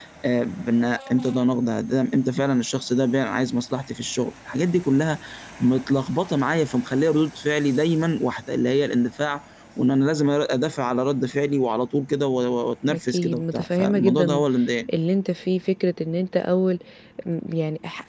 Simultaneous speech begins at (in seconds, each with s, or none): 12.9 s